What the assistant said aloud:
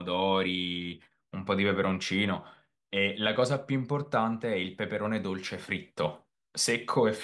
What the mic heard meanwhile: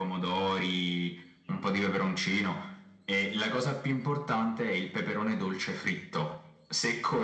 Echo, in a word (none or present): present